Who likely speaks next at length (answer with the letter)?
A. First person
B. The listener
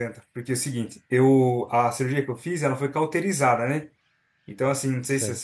A